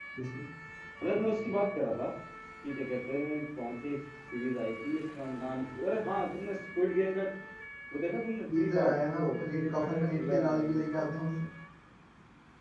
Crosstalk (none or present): present